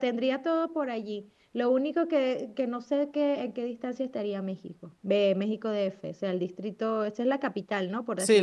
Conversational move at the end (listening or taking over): taking over